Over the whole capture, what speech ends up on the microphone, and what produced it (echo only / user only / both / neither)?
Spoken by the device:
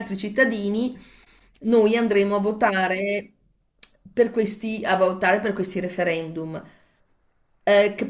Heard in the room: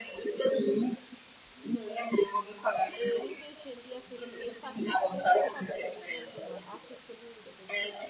both